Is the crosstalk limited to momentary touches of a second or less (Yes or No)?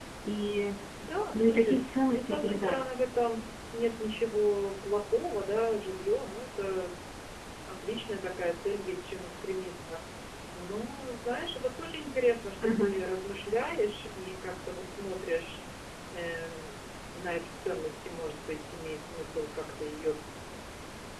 No